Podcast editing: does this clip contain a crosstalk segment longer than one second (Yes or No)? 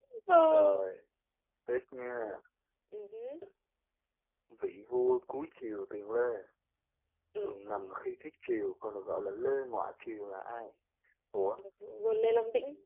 No